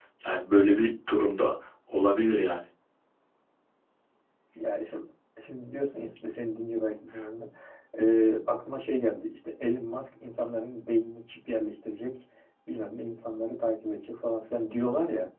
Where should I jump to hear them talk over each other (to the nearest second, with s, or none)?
none